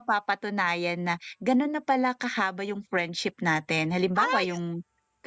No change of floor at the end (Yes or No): Yes